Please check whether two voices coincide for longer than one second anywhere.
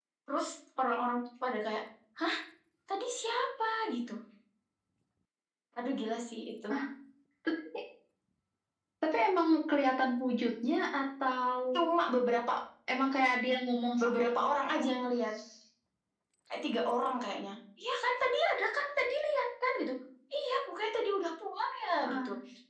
No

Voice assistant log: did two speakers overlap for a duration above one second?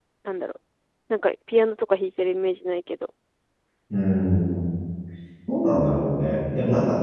No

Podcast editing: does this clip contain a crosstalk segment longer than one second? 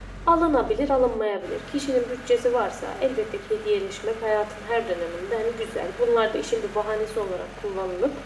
No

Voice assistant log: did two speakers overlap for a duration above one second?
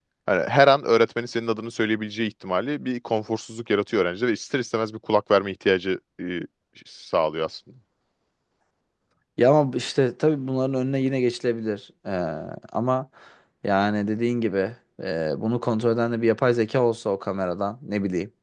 No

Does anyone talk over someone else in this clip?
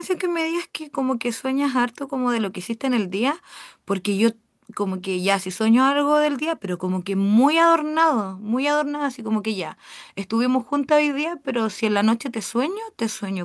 No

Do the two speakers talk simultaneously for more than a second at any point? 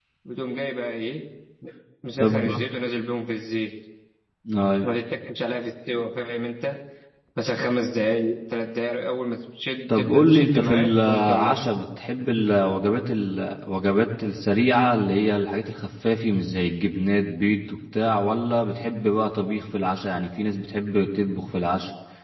Yes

